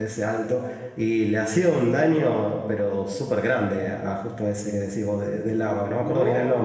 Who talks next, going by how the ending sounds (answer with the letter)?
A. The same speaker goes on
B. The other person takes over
B